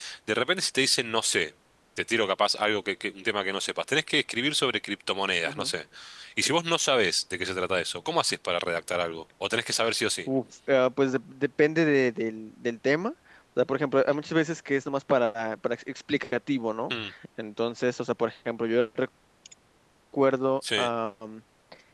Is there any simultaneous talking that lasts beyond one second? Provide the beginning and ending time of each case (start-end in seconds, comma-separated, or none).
none